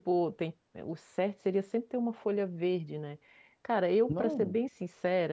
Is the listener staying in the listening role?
Yes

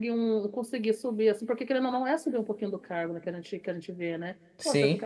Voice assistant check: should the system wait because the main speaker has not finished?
Yes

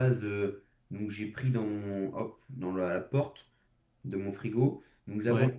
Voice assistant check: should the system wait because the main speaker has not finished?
Yes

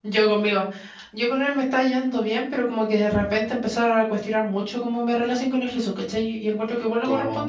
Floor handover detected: No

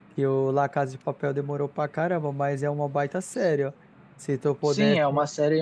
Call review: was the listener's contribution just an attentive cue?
No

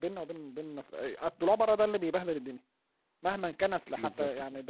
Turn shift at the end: No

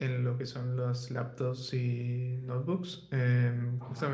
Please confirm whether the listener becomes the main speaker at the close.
No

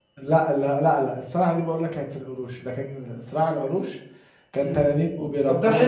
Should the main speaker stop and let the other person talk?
Yes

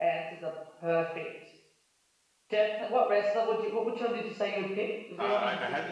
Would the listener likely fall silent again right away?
No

